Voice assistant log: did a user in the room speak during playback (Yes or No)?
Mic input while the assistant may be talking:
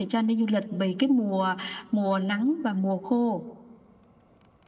No